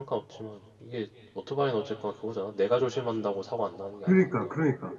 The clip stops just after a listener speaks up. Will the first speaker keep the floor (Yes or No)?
No